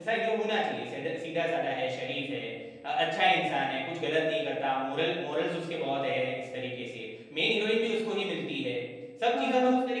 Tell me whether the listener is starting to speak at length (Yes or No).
No